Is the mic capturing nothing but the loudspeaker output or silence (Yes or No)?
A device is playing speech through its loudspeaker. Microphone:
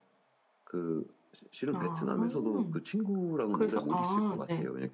No